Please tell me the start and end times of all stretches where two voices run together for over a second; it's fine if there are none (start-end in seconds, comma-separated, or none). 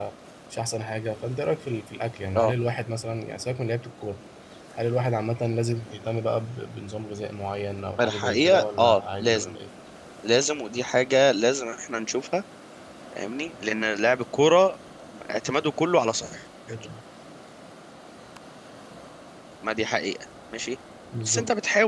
8.0-9.6